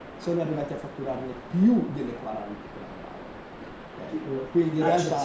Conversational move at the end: taking over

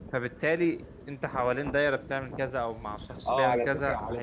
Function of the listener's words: taking over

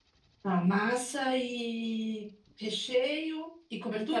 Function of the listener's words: taking over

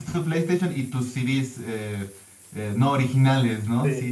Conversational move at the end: listening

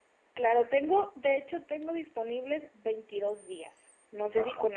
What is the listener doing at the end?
listening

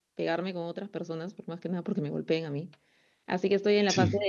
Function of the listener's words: listening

